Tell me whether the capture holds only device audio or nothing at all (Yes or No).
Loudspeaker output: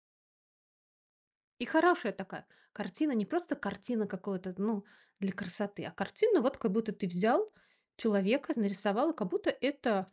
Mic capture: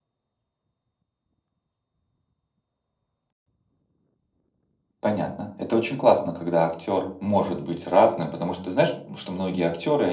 No